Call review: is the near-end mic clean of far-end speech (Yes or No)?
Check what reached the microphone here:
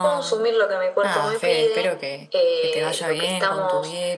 No